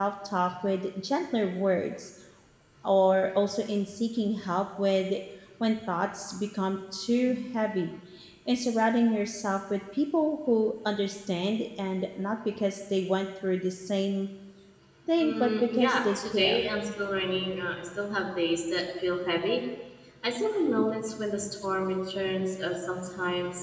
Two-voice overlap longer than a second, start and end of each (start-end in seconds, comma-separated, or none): 15.2-16.7